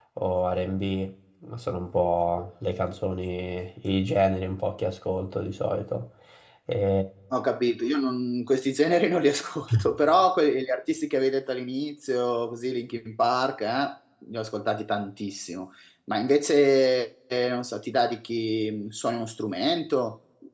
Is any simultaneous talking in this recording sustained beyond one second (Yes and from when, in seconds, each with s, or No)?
No